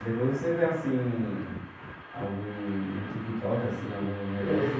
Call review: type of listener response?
taking over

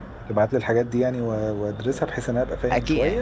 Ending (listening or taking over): taking over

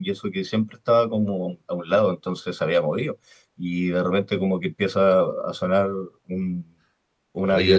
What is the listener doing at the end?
taking over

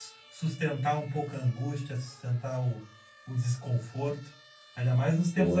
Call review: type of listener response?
listening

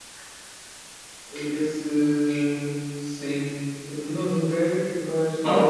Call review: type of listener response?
listening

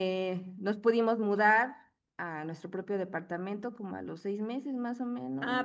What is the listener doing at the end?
taking over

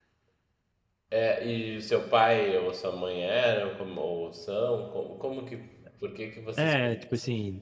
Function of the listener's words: taking over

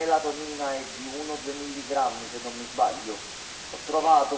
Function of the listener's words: listening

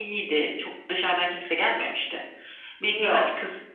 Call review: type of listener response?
listening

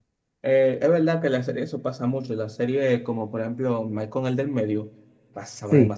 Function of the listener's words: taking over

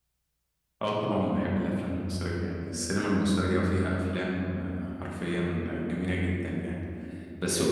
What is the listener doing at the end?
listening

